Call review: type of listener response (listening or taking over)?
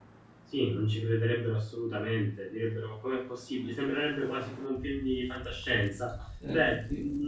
listening